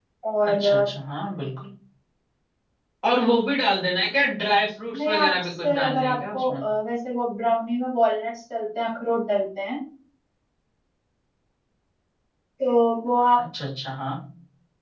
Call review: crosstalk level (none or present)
present